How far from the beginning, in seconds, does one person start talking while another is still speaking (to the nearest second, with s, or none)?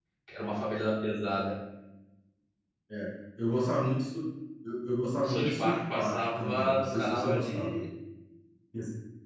5 s